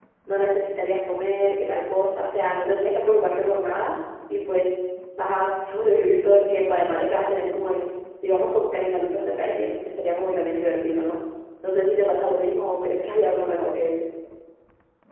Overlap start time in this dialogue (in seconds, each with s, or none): none